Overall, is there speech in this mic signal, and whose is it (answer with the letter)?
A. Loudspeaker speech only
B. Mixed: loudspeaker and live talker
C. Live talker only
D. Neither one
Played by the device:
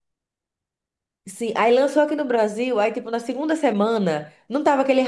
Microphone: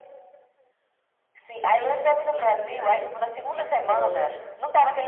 B